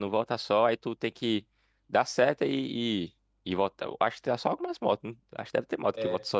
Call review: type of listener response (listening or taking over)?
taking over